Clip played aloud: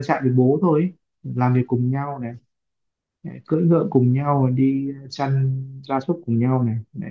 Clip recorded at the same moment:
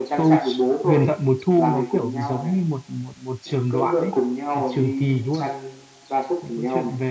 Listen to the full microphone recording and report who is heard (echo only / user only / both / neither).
both